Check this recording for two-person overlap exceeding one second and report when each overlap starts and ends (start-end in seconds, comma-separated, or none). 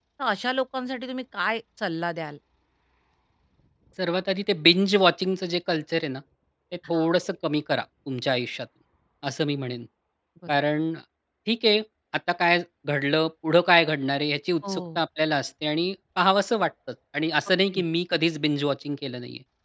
none